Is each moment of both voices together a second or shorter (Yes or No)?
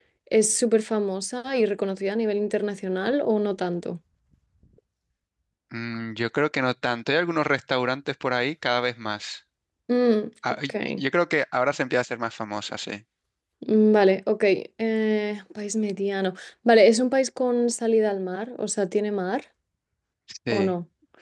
Yes